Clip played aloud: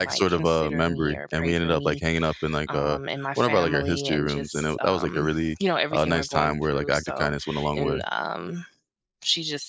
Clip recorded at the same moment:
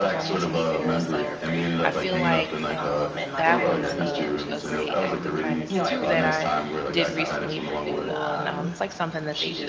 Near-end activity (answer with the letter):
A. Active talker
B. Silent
A